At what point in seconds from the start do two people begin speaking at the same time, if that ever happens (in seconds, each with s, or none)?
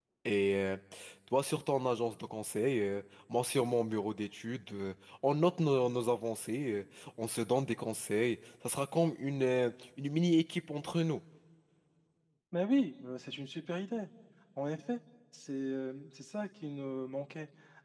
none